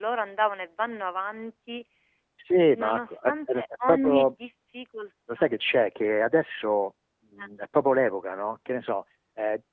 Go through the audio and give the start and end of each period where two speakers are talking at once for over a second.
2.8-4.3

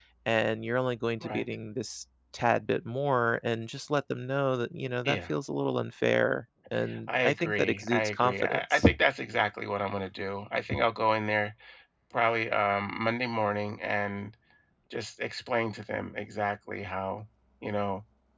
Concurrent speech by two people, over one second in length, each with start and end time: 7.1-8.8

